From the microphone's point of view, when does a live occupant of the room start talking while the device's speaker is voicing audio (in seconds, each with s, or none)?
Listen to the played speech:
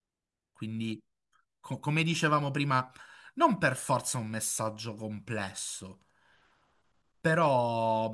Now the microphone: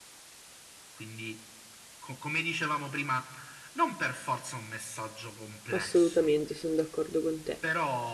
5.7 s